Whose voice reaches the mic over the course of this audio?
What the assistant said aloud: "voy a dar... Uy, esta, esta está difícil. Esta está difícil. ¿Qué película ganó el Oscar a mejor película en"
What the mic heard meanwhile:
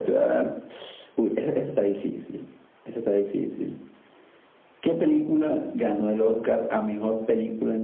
echo only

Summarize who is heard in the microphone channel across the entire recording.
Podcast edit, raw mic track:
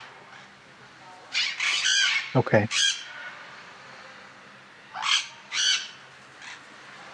user only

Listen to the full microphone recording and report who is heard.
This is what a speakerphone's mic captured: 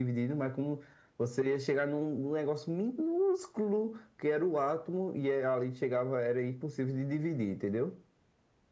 echo only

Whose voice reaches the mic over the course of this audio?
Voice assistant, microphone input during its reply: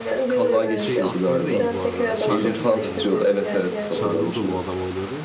both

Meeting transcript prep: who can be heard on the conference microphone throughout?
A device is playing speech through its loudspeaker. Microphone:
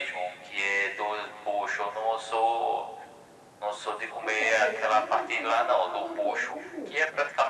both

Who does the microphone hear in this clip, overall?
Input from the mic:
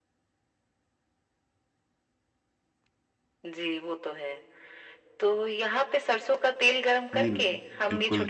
both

